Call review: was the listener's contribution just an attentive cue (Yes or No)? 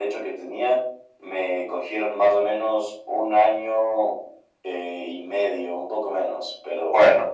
Yes